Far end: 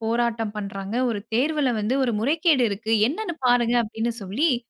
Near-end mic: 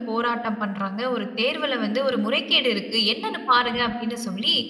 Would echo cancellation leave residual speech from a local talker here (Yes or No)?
No